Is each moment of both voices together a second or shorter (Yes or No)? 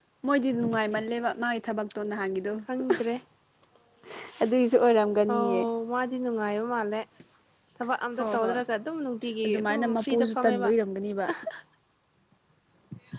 No